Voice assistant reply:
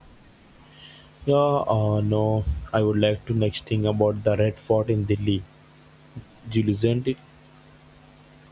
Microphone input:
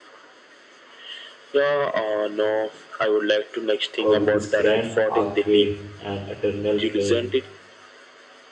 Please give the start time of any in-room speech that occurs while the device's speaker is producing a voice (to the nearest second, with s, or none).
4 s